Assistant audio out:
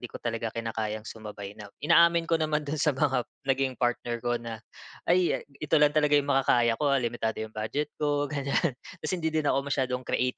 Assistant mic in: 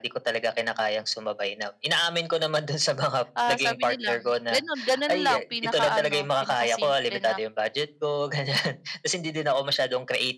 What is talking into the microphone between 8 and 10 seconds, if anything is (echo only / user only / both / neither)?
echo only